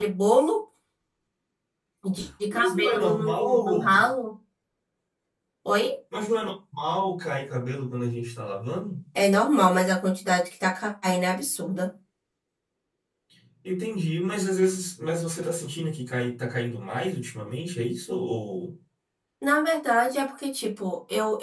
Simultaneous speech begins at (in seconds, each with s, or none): 2.5 s